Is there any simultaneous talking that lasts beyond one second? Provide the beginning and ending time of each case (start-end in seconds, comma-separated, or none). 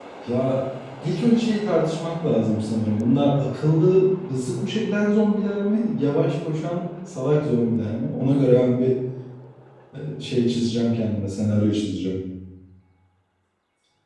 none